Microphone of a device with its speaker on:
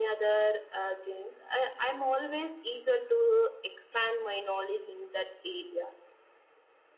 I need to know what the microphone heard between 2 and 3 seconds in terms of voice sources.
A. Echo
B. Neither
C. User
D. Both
A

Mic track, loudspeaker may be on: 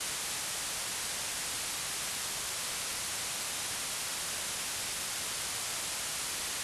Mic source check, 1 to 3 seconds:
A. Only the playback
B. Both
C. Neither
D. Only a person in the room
C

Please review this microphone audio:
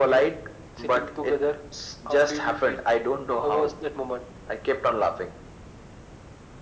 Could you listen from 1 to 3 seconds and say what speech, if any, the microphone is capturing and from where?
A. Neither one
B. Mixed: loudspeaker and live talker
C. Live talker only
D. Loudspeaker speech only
D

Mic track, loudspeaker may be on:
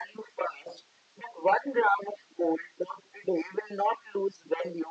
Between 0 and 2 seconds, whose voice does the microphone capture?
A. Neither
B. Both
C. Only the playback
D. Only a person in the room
C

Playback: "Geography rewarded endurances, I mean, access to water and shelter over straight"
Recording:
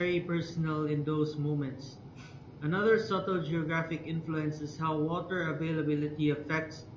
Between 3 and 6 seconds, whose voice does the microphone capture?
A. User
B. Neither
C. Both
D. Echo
A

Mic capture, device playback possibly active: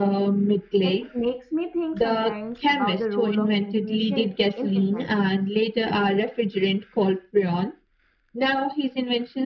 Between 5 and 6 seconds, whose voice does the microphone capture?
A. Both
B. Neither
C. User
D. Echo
A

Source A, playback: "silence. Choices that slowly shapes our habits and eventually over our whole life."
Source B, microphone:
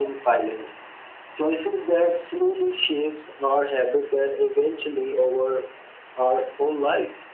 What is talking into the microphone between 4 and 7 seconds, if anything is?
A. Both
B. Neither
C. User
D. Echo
D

